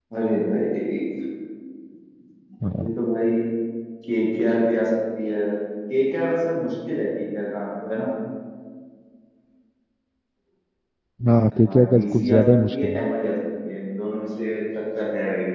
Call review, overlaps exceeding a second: present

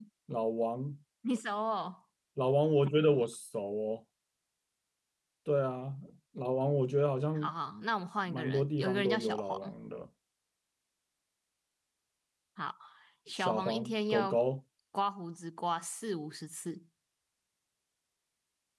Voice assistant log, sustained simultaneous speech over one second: present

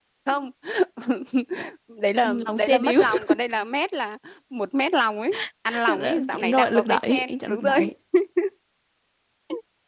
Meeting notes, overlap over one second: present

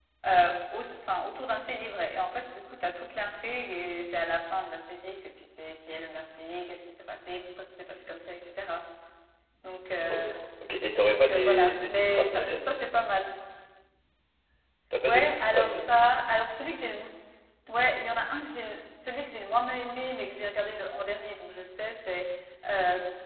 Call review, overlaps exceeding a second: present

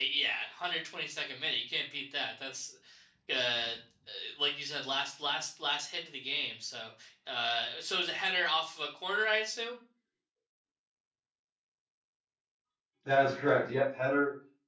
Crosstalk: none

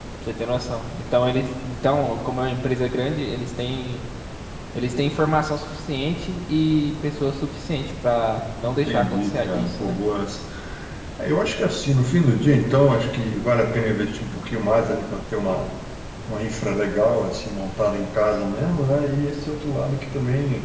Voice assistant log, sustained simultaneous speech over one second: present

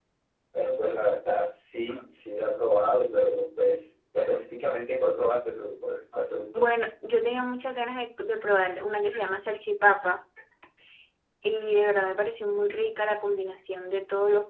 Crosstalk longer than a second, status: none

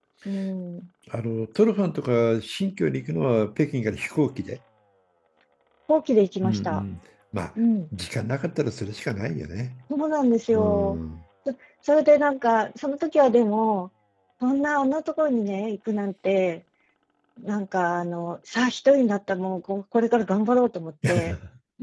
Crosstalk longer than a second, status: none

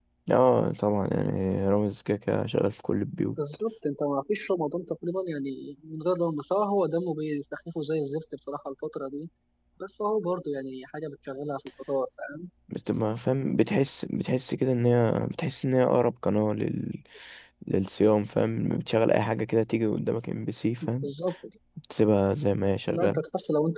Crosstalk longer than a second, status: none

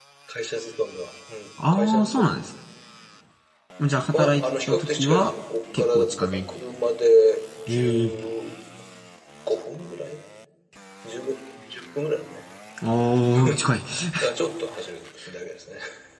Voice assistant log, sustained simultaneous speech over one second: present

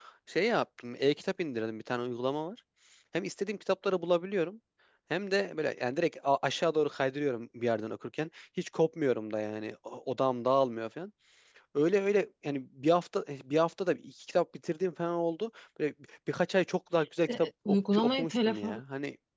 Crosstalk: present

